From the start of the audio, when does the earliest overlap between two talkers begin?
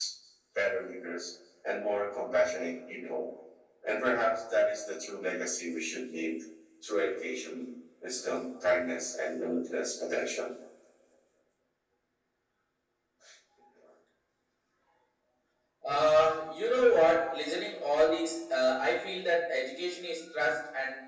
none

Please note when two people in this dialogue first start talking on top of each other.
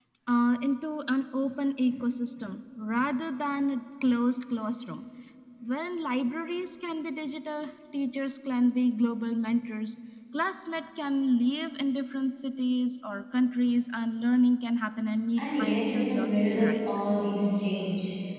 15.4 s

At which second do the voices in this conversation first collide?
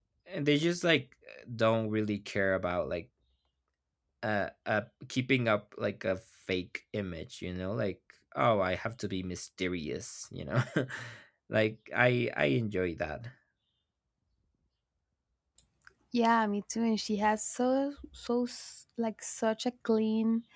none

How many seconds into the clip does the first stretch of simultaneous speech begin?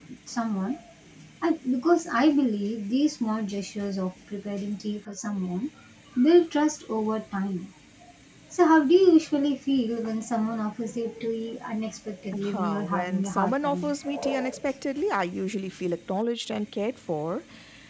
12.3 s

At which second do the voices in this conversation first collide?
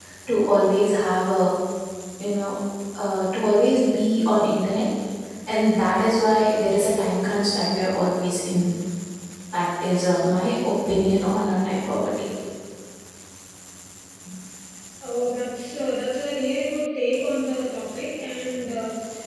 none

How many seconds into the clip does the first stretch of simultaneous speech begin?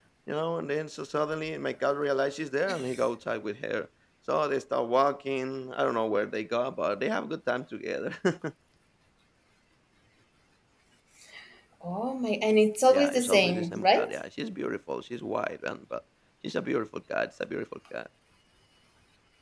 12.9 s

